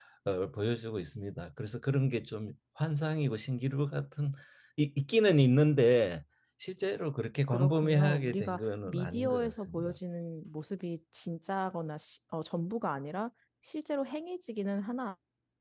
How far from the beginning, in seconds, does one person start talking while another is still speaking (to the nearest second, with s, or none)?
8 s